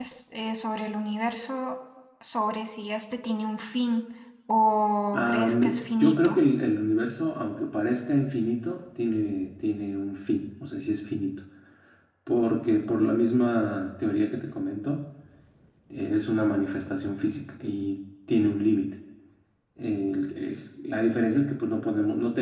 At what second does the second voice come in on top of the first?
5.1 s

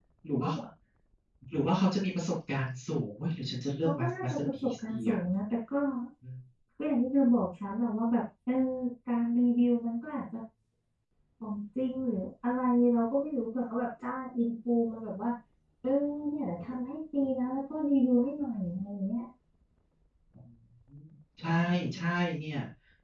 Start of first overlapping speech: 3.8 s

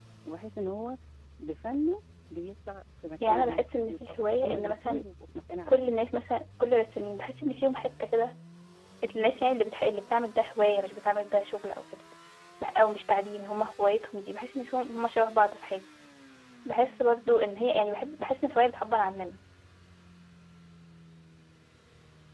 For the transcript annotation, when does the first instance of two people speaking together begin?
3.2 s

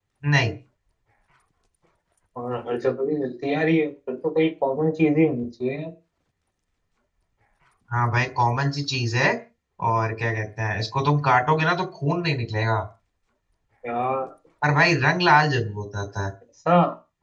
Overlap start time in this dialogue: none

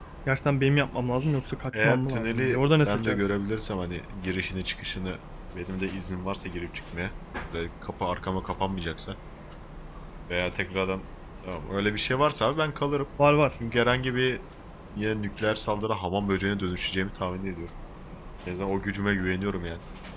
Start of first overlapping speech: 1.7 s

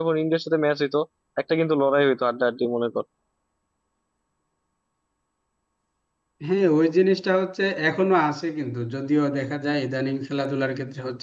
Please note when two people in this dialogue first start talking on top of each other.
none

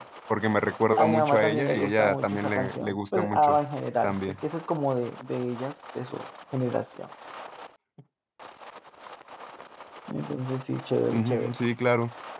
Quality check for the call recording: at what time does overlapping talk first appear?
1.0 s

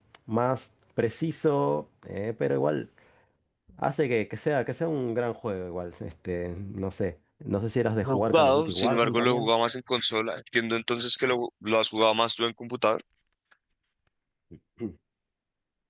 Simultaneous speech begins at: 8.0 s

